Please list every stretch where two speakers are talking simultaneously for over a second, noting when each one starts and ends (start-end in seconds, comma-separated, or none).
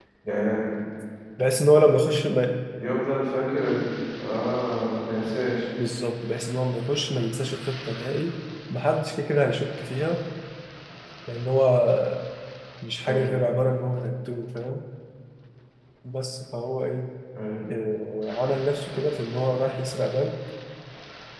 none